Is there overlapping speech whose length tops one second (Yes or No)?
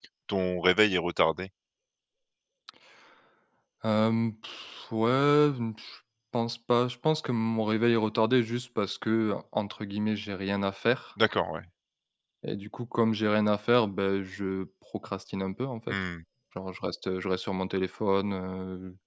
No